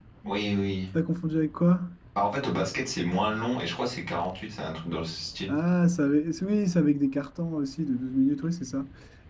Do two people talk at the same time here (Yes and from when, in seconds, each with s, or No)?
No